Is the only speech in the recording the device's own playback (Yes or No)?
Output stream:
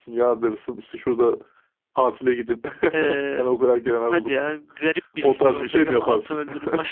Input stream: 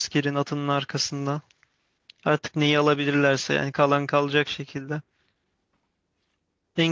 No